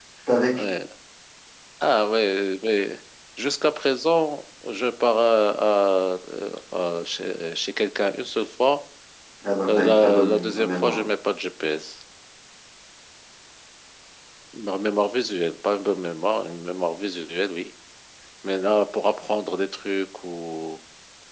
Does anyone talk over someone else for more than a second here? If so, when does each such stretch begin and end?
9.7-11.0

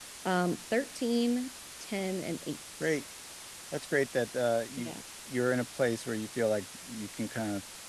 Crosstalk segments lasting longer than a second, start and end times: none

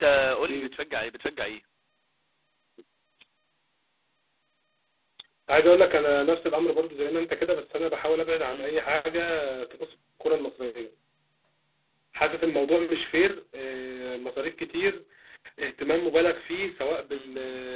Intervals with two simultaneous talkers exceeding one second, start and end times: none

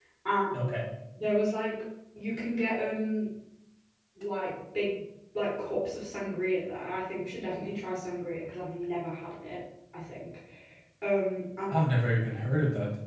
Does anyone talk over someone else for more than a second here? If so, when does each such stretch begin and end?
none

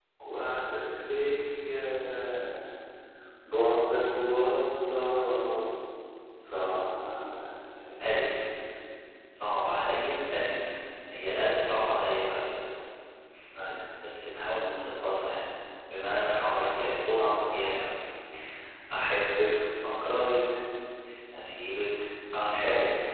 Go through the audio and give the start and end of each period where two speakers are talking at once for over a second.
none

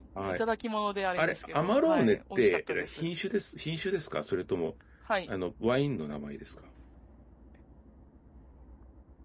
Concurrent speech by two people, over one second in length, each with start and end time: 1.2-3.1

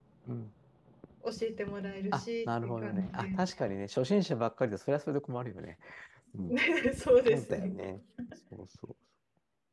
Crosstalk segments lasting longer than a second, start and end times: 2.1-3.4

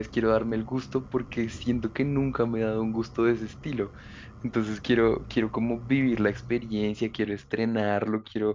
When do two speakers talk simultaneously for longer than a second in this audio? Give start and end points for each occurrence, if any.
none

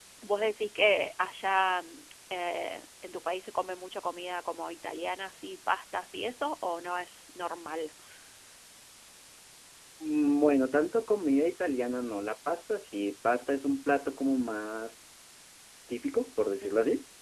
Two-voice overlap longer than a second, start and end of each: none

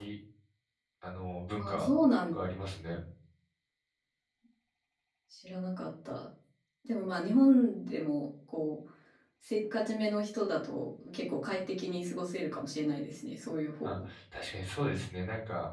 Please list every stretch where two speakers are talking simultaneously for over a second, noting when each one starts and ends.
none

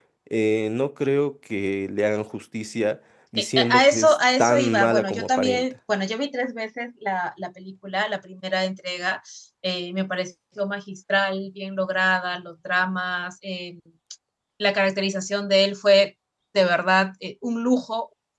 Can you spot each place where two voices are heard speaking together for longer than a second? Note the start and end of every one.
3.4-5.6

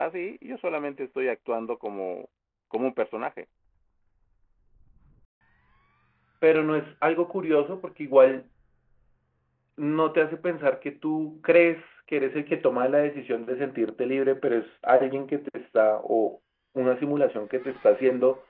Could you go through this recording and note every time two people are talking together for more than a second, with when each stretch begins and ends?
none

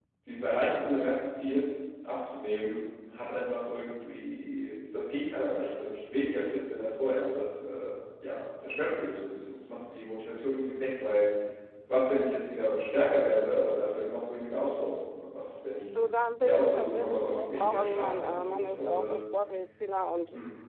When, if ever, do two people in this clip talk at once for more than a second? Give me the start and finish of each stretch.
16.4-19.2

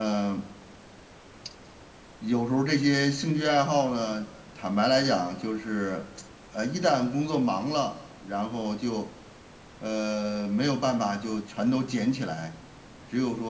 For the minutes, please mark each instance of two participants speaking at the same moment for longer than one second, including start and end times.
none

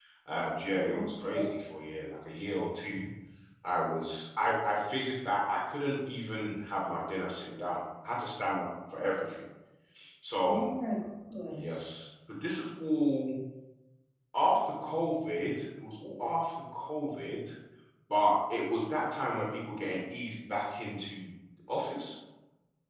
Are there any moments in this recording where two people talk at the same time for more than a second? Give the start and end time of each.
none

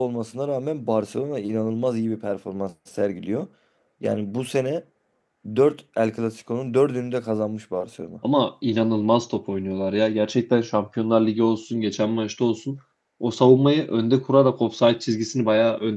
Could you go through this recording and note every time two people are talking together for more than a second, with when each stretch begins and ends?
none

